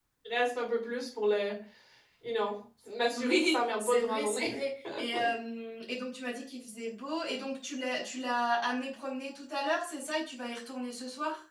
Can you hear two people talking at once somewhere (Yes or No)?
Yes